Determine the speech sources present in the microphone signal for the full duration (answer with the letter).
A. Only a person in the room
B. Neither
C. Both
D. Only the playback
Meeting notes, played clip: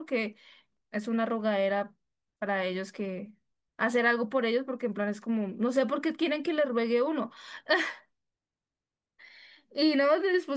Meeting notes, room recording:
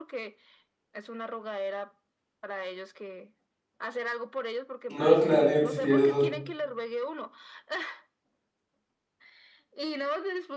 C